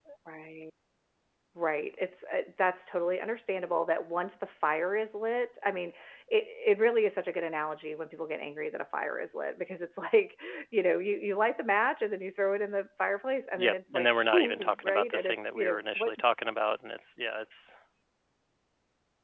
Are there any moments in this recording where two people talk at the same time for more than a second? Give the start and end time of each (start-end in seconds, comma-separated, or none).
13.6-16.1